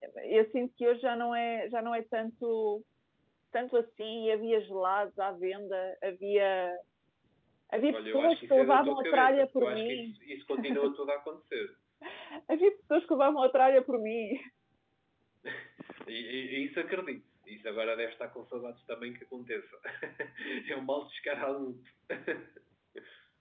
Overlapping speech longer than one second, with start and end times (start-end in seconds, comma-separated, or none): 7.9-10.2